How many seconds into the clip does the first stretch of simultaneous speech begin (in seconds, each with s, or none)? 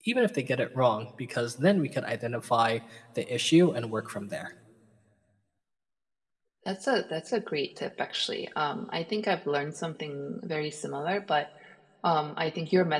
none